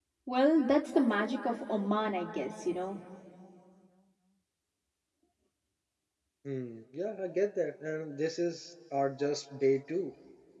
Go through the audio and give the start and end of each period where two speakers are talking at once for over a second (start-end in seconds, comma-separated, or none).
none